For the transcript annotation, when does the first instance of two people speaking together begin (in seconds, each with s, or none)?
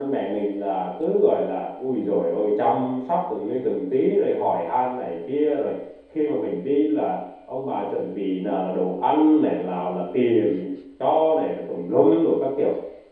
none